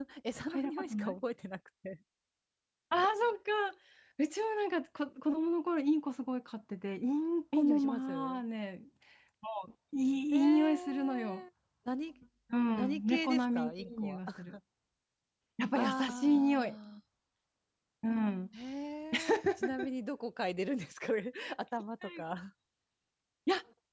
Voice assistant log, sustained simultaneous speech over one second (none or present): present